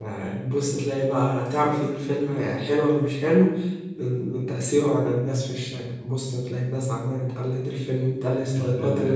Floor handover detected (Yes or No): Yes